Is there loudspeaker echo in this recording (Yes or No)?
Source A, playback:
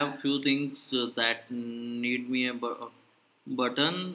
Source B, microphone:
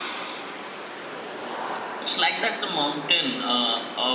No